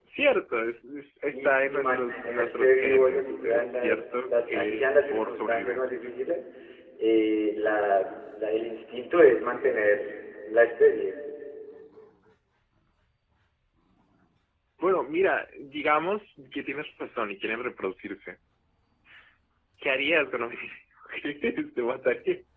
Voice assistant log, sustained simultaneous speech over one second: present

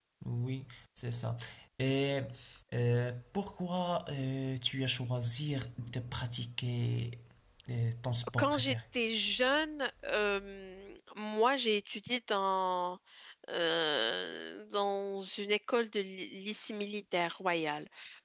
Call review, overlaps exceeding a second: none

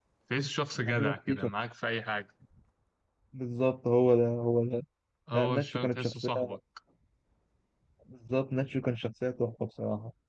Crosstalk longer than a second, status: present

